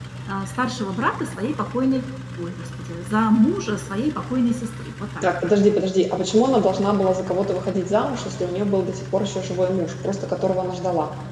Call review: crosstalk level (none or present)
none